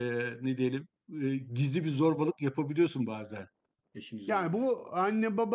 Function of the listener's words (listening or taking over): taking over